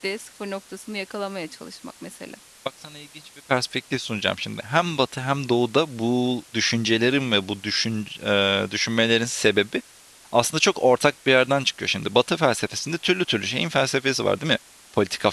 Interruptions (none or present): none